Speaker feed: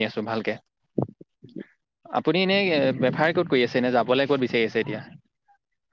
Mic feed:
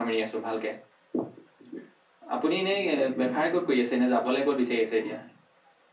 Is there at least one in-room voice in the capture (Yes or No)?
No